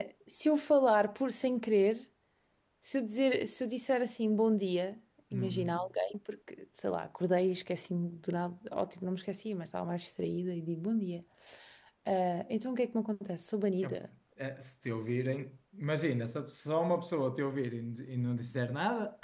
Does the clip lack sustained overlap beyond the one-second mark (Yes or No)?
Yes